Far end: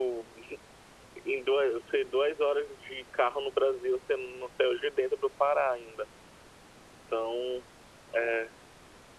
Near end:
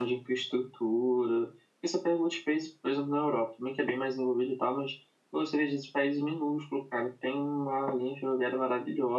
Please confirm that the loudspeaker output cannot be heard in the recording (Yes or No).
Yes